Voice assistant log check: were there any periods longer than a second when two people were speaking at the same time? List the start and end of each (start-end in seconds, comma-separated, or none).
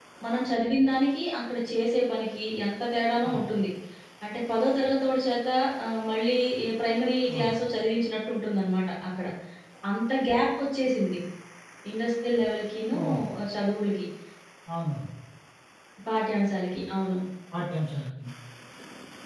none